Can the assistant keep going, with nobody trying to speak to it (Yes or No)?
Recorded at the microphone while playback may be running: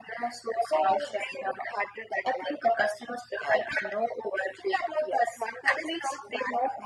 Yes